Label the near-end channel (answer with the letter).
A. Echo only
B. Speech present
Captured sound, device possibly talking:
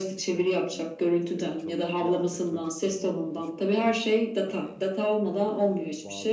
B